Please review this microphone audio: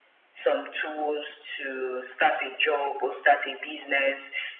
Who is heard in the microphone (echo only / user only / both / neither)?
echo only